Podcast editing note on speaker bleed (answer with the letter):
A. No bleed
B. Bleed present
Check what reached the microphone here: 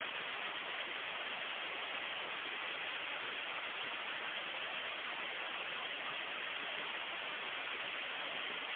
A